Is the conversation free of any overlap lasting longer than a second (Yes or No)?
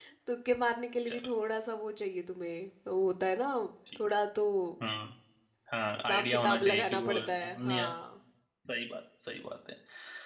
No